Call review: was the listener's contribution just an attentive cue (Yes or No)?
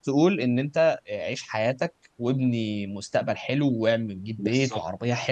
Yes